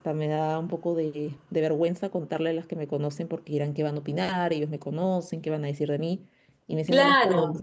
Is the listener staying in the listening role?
Yes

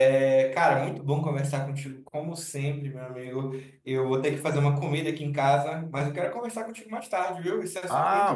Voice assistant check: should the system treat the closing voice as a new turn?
Yes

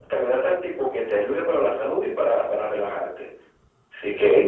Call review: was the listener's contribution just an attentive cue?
Yes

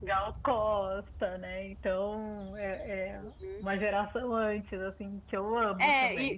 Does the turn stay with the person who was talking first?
No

